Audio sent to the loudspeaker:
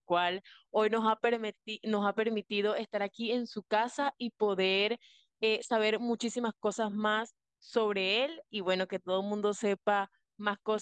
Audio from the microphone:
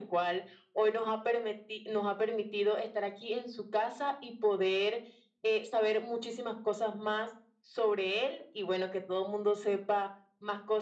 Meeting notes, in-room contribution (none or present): none